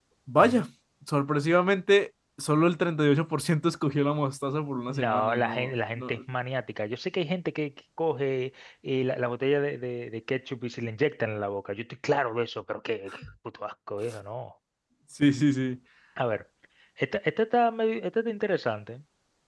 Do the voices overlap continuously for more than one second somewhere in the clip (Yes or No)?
Yes